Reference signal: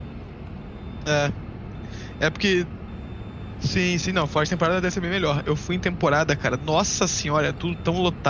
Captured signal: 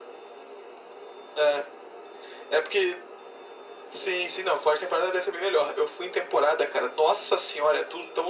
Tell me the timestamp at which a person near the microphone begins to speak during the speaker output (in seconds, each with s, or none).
none